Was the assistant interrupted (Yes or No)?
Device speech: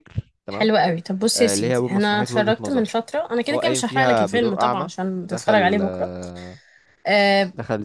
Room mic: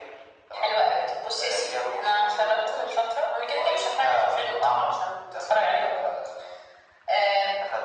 No